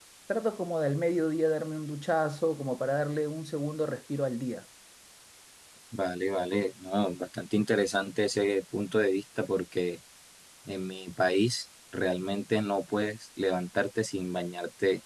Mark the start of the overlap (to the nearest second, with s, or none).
none